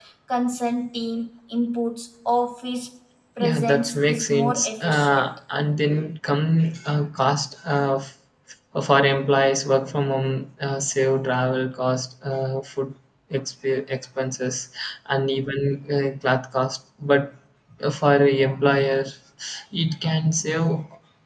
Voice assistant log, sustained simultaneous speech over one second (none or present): present